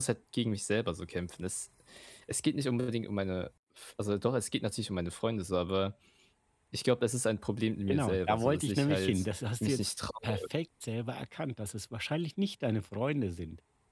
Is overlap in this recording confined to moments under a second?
No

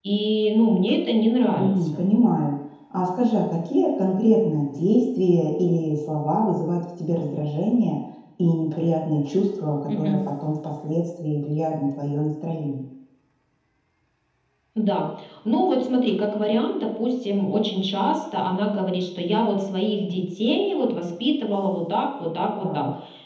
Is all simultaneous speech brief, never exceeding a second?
Yes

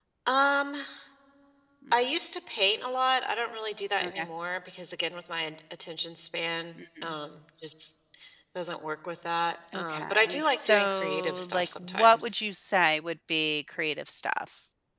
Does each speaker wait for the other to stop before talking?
No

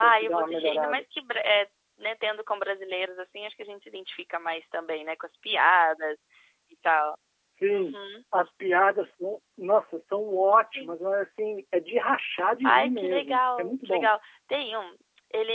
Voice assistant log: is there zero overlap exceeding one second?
No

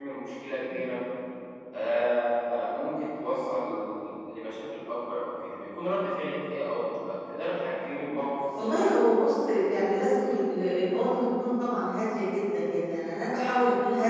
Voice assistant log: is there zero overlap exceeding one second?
Yes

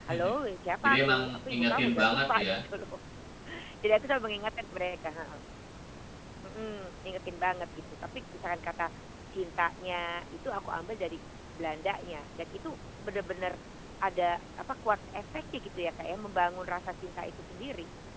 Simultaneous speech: Yes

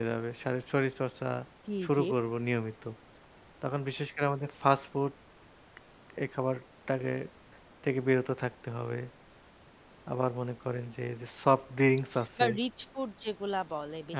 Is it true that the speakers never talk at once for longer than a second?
Yes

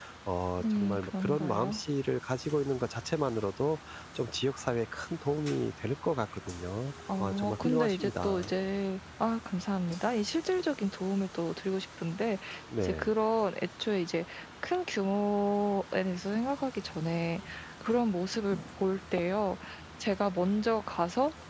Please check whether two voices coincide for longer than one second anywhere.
Yes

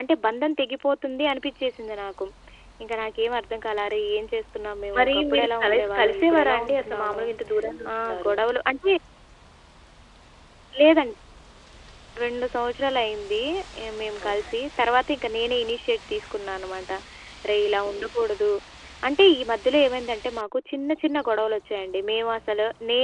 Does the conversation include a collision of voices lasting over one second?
Yes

